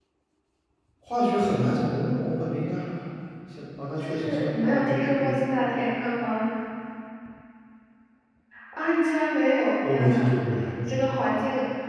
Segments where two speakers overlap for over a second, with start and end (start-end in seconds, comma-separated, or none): 4.0-5.4